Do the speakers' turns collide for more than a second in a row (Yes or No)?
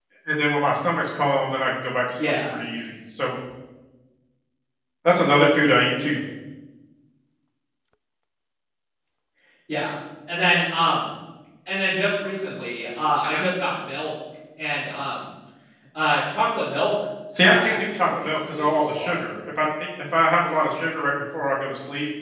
Yes